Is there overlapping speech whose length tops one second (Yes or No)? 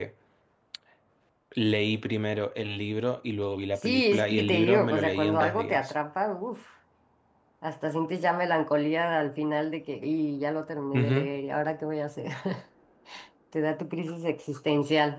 Yes